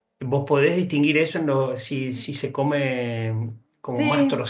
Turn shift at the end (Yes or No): No